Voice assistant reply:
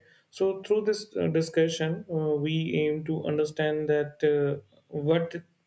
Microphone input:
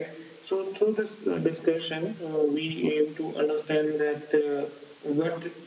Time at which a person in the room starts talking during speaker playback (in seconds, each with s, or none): none